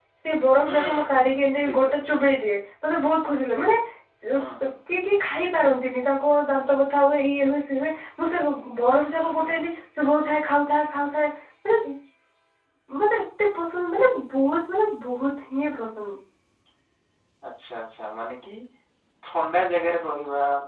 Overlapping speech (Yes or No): Yes